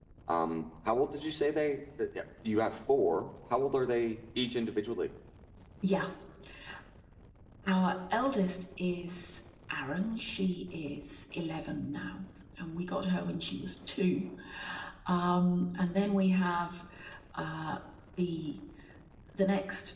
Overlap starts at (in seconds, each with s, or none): none